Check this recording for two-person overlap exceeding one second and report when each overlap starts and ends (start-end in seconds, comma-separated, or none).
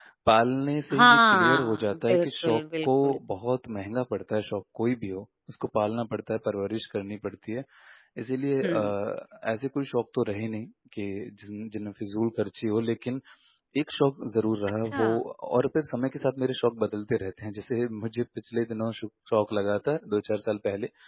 0.9-3.2